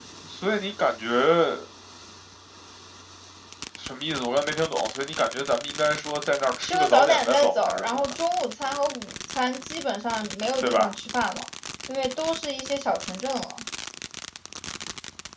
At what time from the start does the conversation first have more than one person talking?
6.6 s

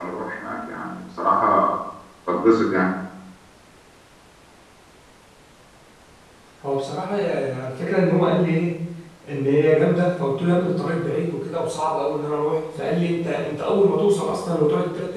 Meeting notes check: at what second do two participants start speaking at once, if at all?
none

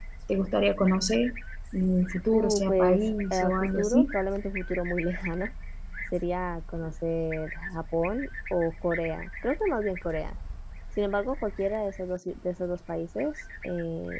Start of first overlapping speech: 2.3 s

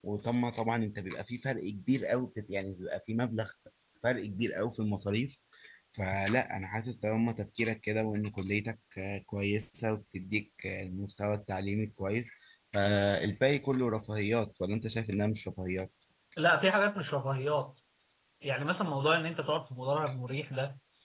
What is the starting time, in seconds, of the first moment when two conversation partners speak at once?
none

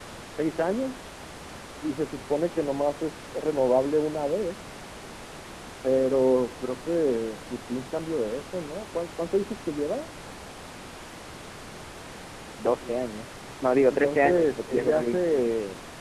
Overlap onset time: 13.9 s

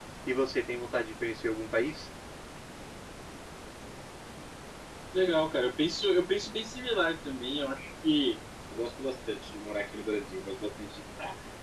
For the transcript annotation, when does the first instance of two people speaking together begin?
none

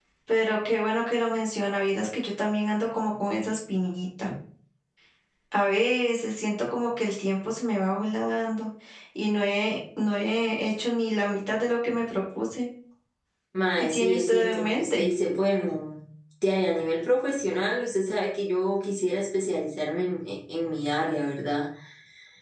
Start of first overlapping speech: 13.8 s

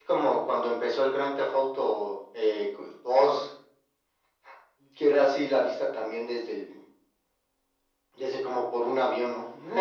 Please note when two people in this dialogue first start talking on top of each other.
none

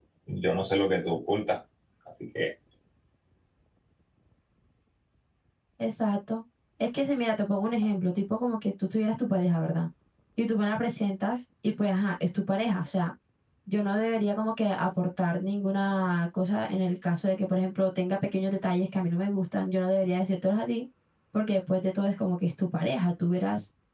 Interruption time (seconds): none

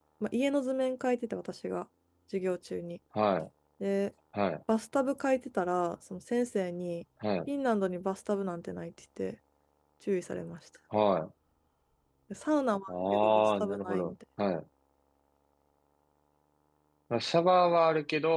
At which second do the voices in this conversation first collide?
12.9 s

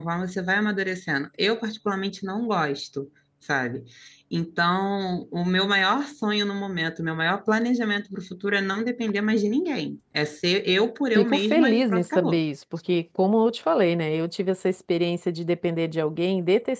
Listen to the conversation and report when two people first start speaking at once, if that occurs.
11.2 s

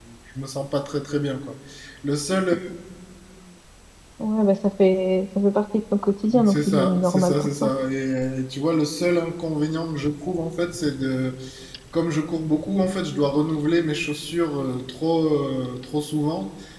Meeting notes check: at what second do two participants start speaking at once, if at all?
6.3 s

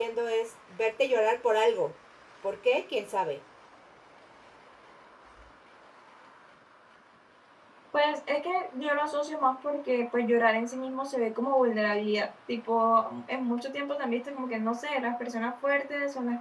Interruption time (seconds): none

